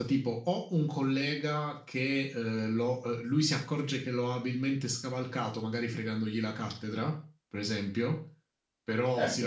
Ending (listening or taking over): listening